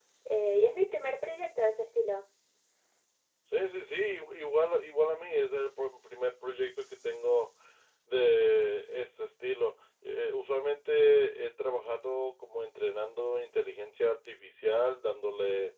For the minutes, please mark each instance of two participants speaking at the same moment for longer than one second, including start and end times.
none

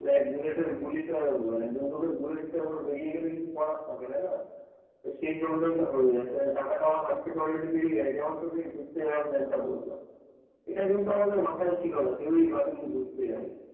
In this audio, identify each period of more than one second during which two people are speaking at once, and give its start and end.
none

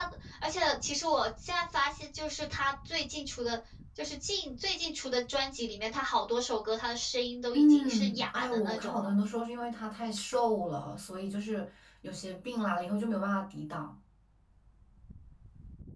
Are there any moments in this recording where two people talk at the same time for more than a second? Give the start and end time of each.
7.5-9.1

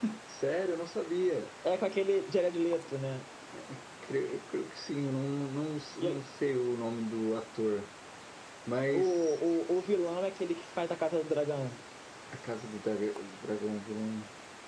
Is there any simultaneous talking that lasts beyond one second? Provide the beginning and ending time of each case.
none

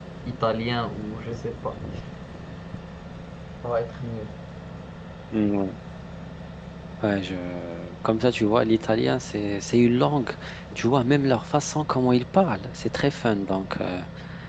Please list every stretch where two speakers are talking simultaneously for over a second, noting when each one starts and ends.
none

